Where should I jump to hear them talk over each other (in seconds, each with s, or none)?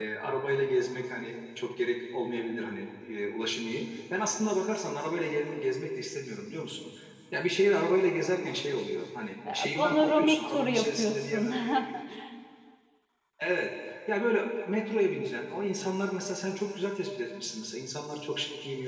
9.4 s